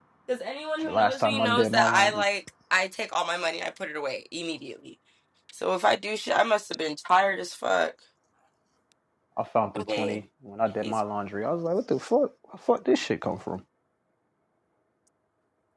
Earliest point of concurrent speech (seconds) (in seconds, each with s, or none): 0.9 s